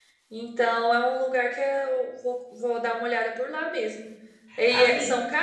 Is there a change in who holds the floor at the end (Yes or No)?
No